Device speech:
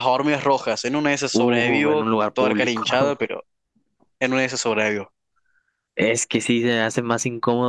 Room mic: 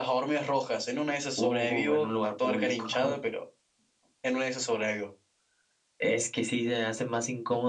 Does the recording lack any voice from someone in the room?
Yes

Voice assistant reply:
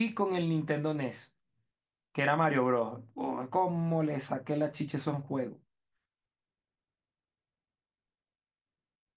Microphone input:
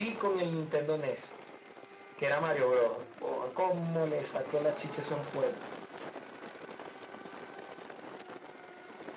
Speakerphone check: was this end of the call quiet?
Yes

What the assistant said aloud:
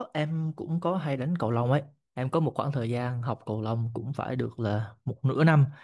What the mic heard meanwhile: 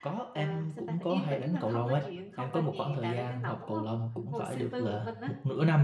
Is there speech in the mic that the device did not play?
Yes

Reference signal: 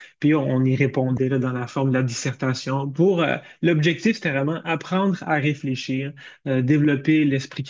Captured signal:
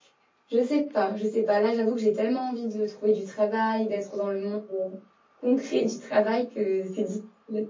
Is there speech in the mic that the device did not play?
Yes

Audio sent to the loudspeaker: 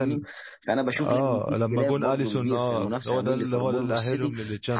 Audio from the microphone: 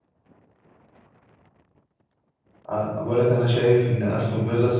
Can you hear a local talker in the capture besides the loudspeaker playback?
Yes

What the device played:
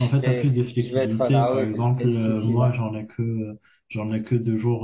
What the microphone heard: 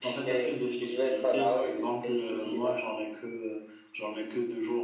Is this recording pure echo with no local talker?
Yes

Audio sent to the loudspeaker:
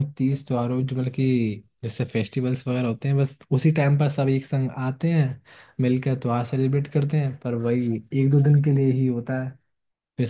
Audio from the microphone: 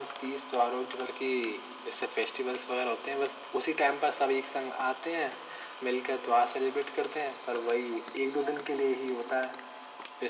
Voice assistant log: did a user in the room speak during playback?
No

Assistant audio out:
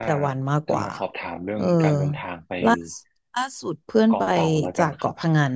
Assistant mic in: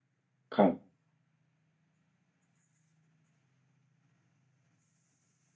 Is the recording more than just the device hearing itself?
Yes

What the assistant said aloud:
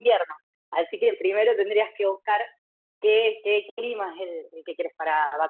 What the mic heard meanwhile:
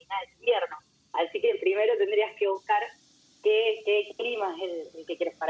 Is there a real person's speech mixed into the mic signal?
No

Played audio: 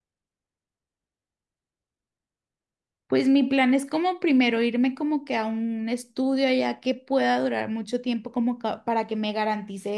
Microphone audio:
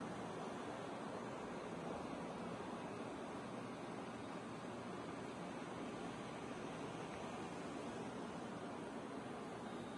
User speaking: No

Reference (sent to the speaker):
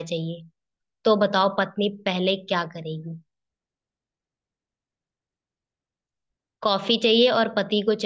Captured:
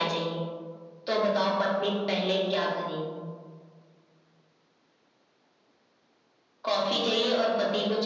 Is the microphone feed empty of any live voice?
No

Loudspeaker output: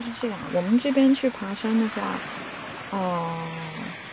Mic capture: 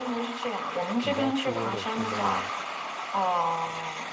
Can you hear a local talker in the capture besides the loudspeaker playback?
Yes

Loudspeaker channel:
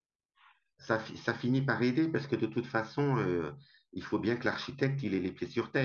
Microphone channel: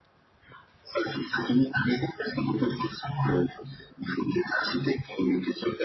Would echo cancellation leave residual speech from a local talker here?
No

